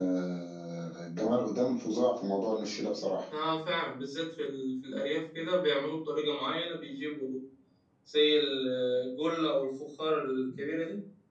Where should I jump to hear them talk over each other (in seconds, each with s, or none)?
none